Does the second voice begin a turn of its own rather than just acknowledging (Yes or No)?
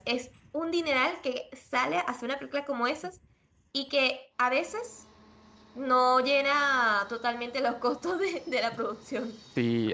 Yes